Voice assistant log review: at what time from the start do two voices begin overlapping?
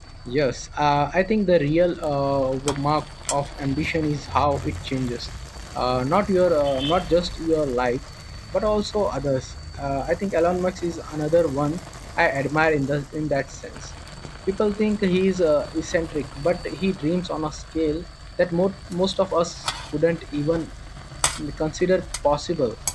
none

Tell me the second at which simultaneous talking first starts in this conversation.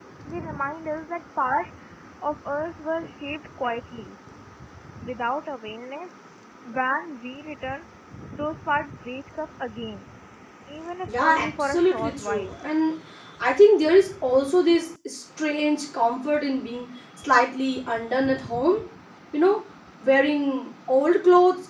11.2 s

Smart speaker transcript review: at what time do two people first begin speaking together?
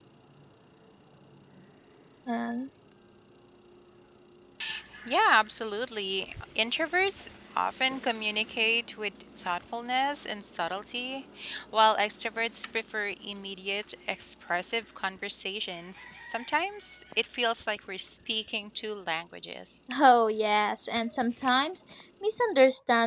none

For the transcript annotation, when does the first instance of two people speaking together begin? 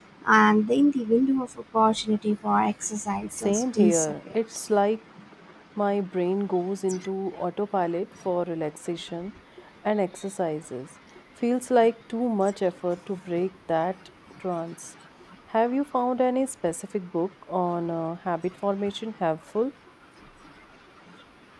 3.3 s

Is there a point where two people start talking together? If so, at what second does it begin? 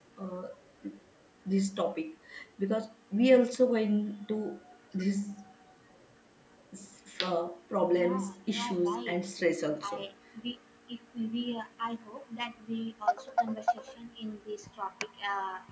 7.9 s

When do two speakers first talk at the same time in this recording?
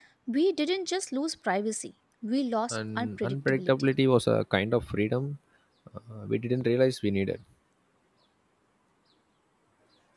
2.7 s

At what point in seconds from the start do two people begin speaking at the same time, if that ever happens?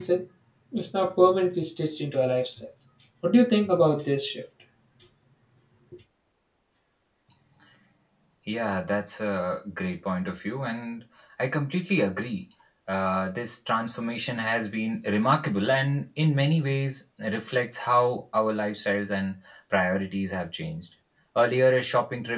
none

